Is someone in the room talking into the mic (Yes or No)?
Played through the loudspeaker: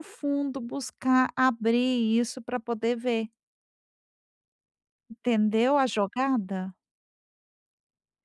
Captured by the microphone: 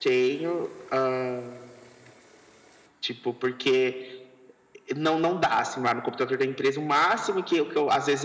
Yes